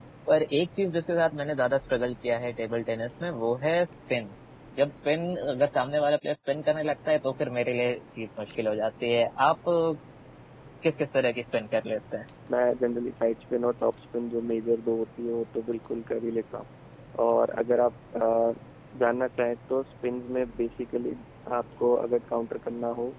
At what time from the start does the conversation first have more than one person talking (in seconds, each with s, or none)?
none